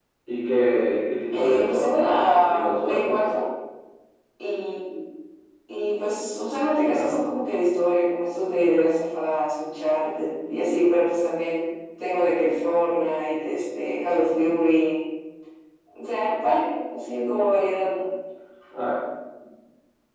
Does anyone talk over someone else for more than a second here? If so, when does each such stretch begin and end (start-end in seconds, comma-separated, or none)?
1.3-3.2